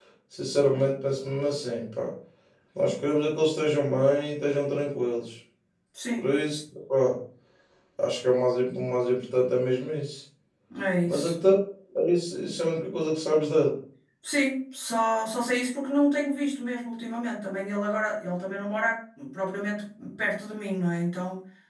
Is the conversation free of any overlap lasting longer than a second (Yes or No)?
Yes